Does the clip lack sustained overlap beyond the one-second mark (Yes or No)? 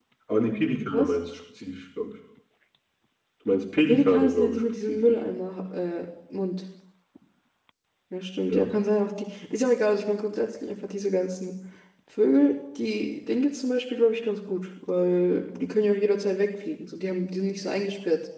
No